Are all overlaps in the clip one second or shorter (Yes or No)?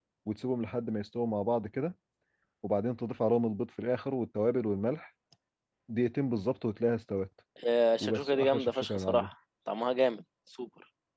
No